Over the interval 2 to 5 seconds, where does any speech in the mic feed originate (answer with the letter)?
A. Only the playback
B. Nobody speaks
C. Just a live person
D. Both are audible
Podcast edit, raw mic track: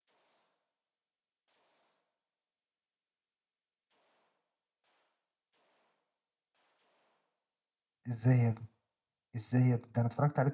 B